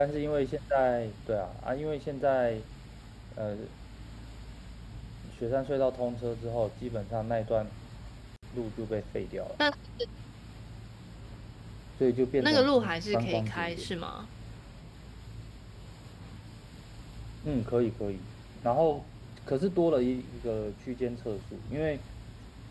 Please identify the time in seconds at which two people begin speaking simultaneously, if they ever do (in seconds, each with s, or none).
12.4 s